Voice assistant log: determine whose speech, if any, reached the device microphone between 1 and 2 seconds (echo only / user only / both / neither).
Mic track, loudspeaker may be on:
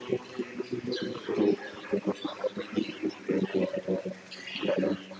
echo only